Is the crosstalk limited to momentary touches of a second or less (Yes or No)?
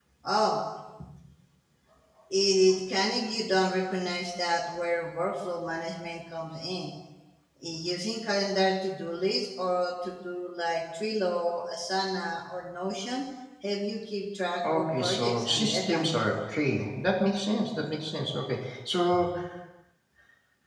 No